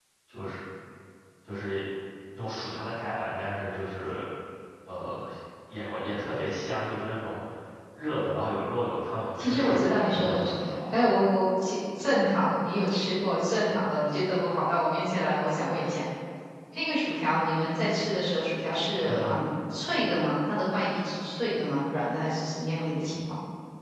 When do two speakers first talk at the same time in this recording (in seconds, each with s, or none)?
9.4 s